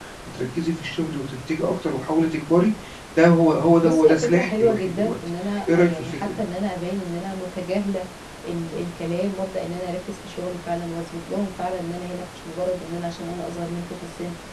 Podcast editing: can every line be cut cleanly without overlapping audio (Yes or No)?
No